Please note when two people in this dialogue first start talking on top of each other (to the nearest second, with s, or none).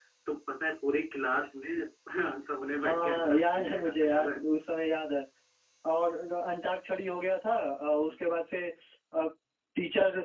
3 s